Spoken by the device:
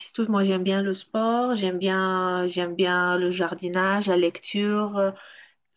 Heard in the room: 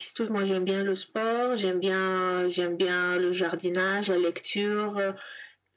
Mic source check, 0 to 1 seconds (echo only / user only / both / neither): echo only